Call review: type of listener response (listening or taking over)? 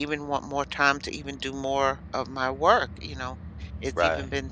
listening